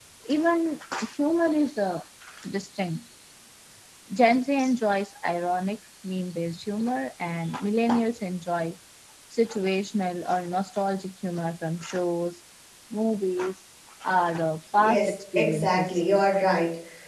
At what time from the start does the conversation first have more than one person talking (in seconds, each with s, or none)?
14.8 s